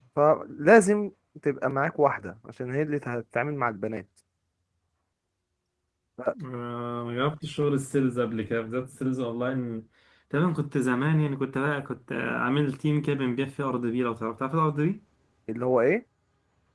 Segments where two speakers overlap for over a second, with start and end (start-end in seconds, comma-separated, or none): none